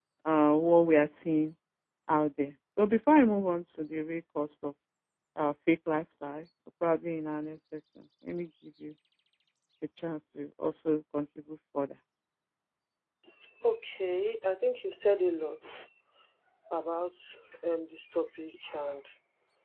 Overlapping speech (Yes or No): No